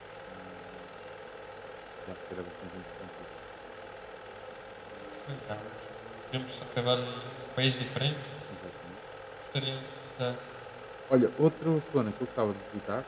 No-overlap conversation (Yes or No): Yes